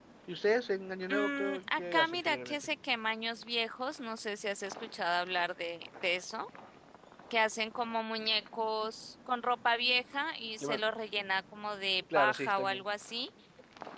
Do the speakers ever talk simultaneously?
Yes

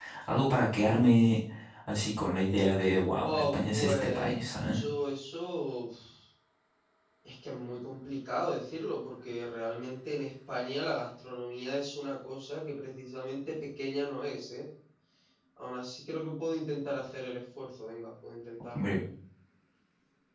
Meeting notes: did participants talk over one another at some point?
Yes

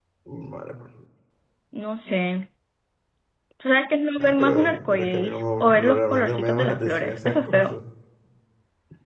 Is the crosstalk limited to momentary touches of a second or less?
No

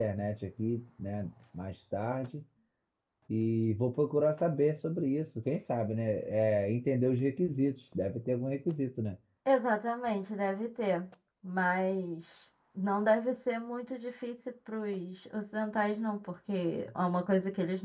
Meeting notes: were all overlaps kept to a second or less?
Yes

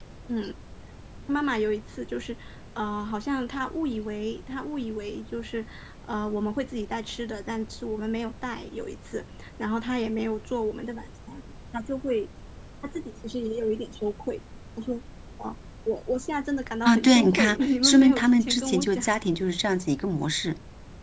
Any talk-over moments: Yes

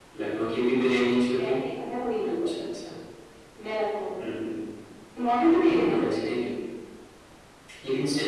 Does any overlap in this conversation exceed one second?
No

